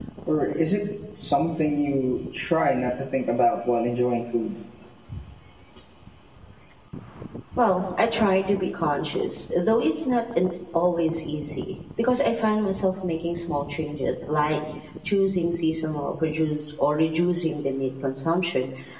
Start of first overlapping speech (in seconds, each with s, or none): none